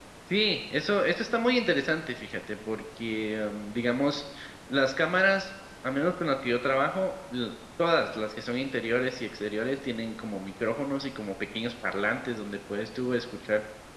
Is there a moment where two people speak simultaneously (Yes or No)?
No